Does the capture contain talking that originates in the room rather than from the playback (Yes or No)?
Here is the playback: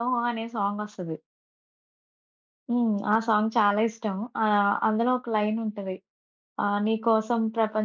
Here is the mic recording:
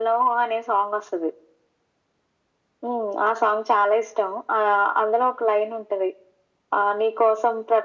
No